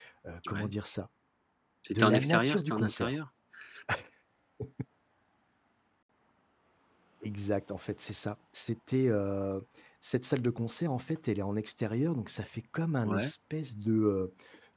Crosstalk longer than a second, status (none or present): present